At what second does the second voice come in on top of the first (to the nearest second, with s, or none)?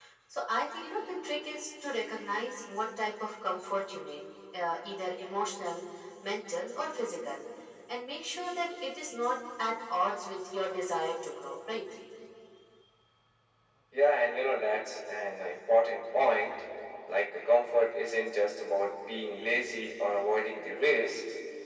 none